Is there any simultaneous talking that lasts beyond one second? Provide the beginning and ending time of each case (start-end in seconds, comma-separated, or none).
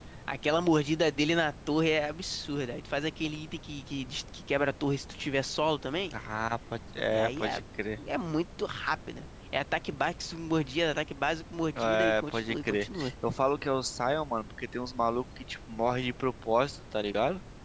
11.8-13.1